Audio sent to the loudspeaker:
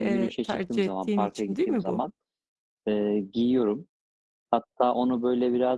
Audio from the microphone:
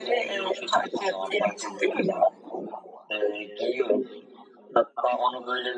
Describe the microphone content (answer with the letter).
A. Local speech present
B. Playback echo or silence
B